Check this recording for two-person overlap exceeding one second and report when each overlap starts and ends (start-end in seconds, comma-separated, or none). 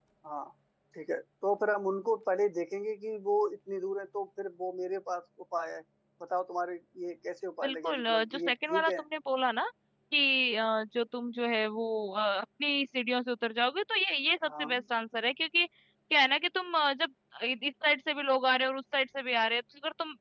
7.6-8.9